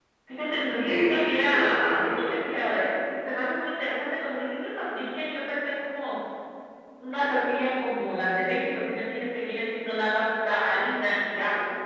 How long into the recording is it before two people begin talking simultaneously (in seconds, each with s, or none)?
0.7 s